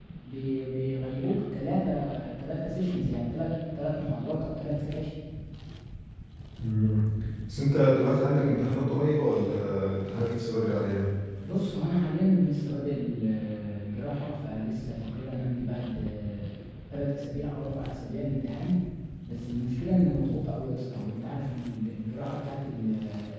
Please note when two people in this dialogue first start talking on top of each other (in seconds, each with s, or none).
none